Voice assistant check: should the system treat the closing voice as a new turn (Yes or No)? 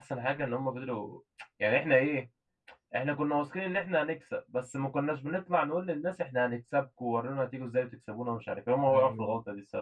Yes